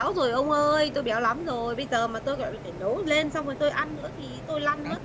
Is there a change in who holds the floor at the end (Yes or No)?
Yes